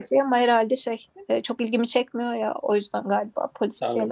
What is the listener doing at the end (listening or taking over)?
taking over